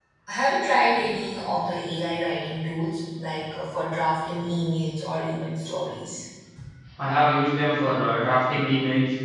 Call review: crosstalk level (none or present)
none